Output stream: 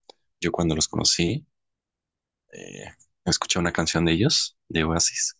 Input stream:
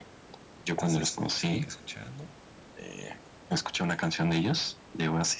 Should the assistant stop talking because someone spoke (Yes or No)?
Yes